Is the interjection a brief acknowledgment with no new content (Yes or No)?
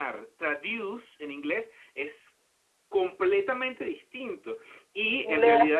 Yes